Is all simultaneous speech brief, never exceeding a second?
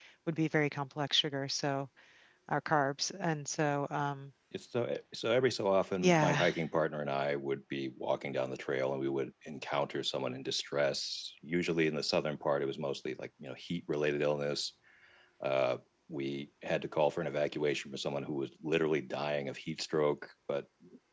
Yes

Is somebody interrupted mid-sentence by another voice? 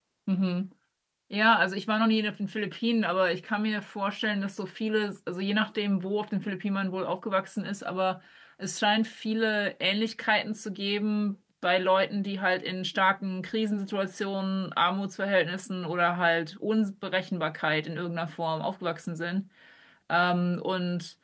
No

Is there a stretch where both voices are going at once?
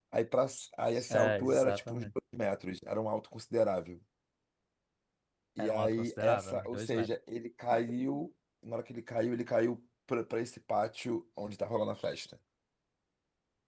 Yes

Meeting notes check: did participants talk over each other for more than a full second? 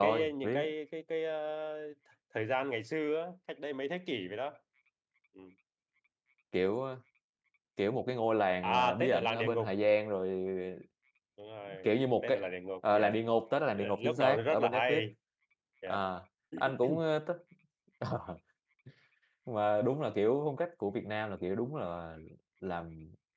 Yes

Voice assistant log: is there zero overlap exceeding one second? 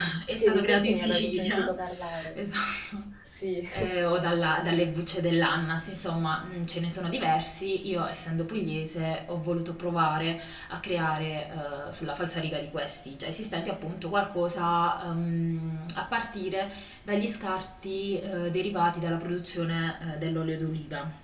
No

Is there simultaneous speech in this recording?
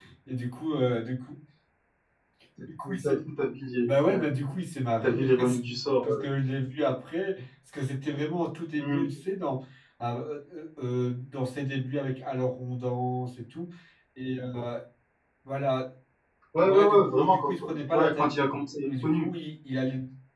Yes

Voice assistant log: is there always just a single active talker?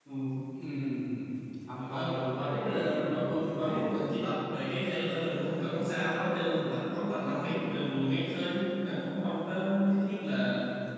No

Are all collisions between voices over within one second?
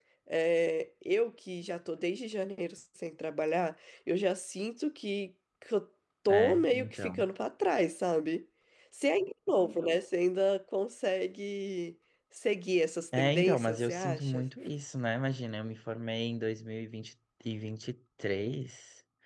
No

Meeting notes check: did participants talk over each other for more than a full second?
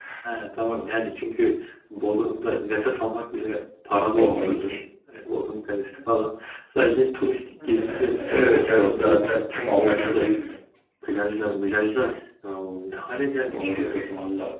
Yes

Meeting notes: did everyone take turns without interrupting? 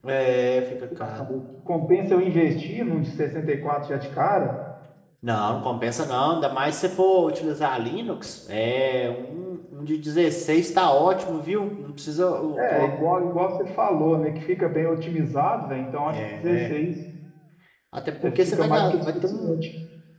No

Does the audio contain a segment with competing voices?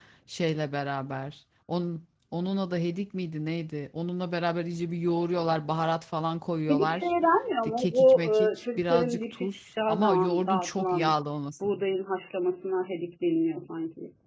Yes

